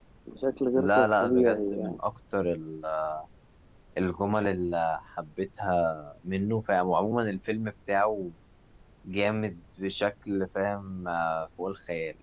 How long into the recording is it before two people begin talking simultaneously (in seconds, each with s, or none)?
0.7 s